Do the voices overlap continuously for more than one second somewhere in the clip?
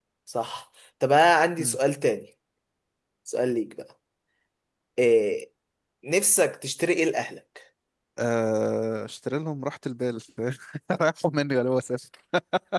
No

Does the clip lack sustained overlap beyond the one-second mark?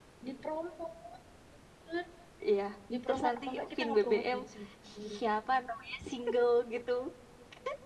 No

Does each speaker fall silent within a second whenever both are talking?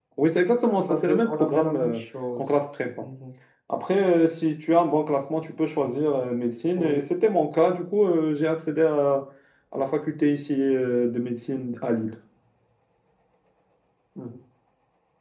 No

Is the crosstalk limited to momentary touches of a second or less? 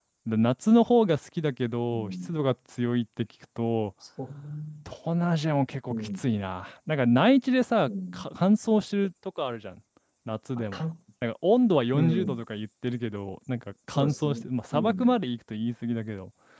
No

